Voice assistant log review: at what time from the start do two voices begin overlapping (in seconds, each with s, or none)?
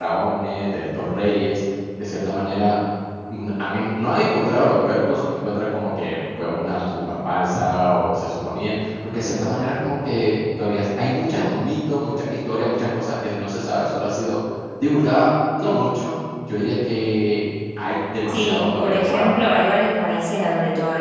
18.3 s